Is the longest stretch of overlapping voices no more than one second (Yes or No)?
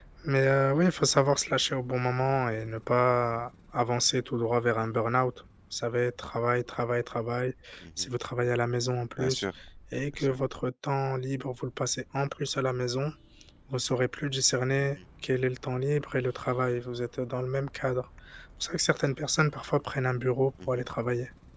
Yes